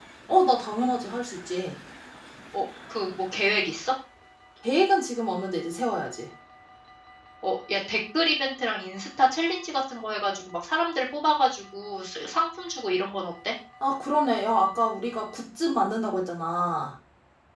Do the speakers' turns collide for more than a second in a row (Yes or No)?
No